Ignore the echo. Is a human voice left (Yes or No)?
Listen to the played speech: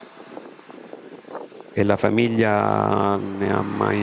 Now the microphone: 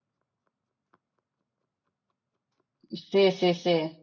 Yes